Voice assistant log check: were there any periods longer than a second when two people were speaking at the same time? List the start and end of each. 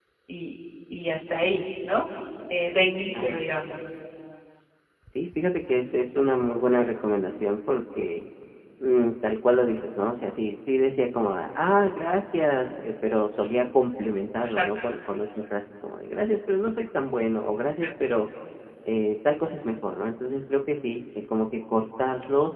none

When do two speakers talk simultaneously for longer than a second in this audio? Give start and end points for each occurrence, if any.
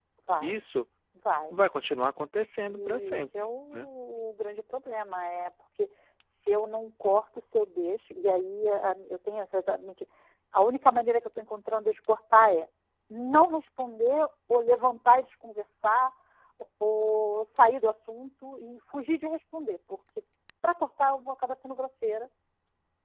2.7-3.9

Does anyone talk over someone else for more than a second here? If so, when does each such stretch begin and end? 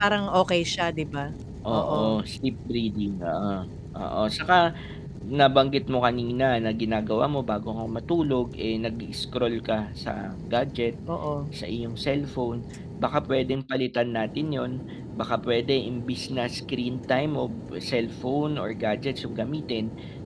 none

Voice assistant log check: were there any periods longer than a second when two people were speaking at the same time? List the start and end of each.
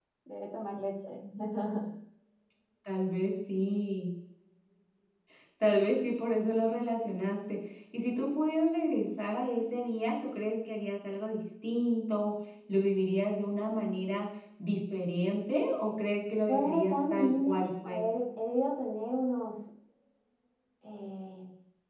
16.5-18.0

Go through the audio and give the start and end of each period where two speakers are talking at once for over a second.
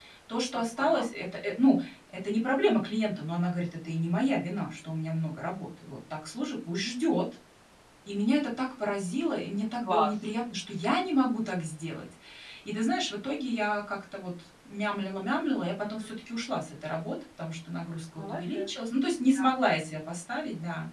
none

